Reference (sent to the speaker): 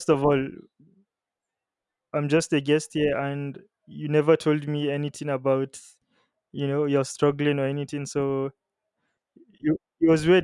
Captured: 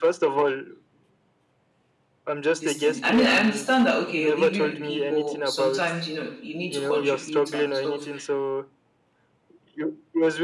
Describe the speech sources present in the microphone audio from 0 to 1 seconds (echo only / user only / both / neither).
echo only